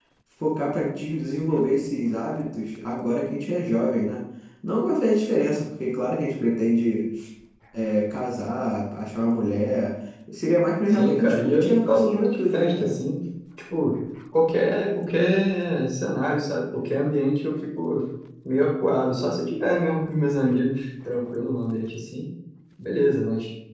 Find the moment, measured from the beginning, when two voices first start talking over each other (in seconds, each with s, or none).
10.9 s